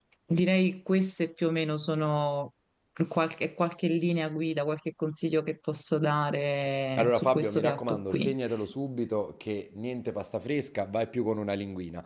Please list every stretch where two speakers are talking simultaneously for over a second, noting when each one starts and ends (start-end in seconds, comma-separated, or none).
7.0-8.3